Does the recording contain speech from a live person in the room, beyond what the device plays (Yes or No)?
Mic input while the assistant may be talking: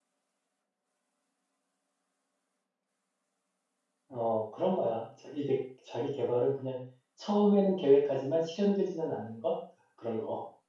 Yes